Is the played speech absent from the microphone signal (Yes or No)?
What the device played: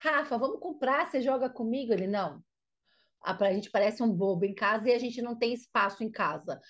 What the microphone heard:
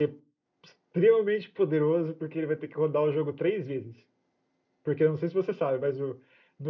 Yes